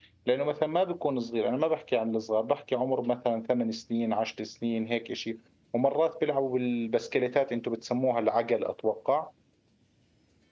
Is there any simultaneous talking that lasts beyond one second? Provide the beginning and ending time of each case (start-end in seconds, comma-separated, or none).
none